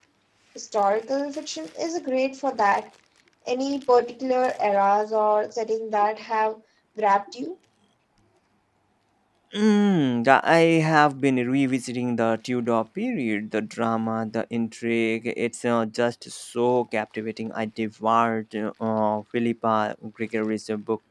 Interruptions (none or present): none